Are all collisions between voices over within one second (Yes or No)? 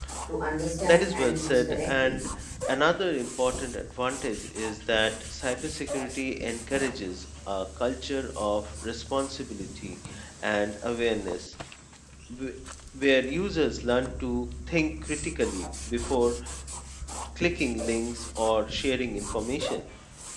No